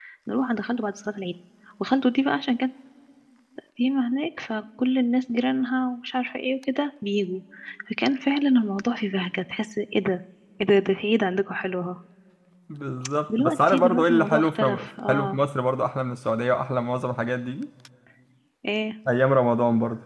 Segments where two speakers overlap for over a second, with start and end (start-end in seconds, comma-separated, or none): 13.4-15.4